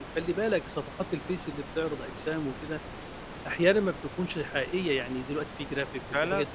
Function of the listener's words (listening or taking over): listening